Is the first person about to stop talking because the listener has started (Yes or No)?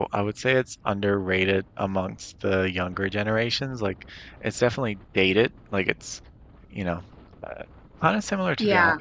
No